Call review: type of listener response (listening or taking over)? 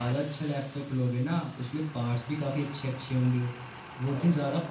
listening